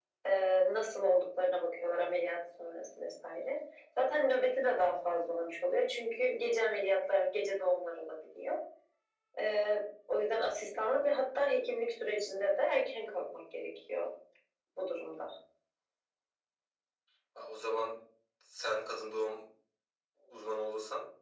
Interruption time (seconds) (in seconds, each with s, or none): none